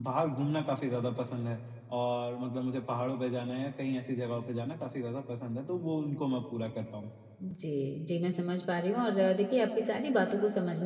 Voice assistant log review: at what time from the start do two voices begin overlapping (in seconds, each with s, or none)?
none